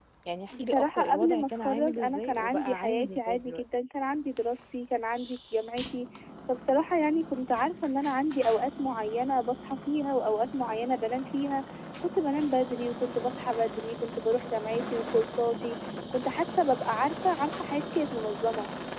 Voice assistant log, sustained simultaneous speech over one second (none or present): present